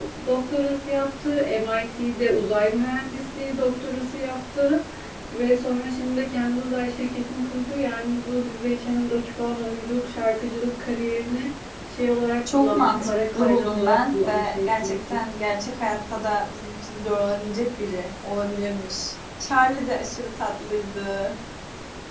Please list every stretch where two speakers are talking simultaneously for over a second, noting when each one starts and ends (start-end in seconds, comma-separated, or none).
12.5-15.2